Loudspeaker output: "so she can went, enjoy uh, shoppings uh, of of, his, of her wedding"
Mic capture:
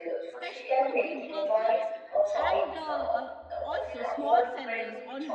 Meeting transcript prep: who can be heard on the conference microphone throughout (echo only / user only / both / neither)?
both